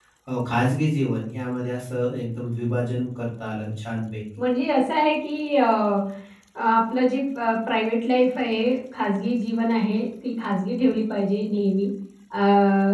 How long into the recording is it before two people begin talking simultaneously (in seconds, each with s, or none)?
none